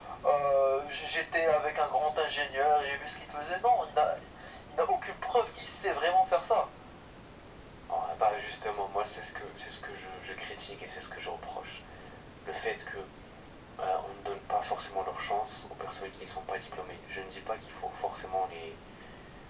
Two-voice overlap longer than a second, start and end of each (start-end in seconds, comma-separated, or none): none